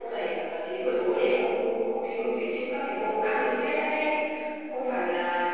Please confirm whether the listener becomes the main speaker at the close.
No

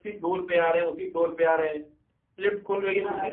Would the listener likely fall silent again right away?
Yes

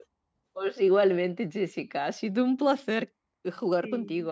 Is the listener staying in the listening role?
Yes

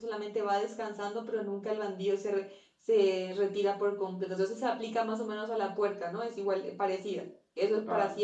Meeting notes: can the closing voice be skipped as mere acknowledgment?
No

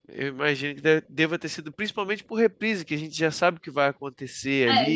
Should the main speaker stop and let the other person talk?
Yes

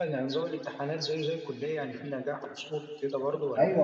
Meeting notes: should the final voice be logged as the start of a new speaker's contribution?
Yes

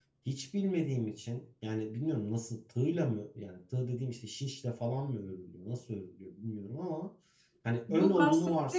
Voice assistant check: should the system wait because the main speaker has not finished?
No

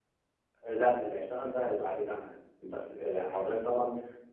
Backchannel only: Yes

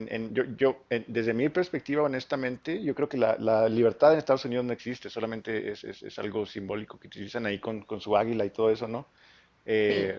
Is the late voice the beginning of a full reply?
No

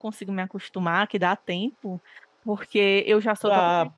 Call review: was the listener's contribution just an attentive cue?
Yes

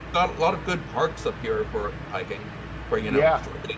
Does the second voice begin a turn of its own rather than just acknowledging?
Yes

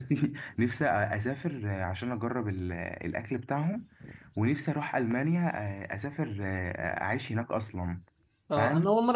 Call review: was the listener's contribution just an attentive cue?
No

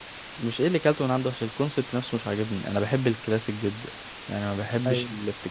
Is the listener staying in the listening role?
Yes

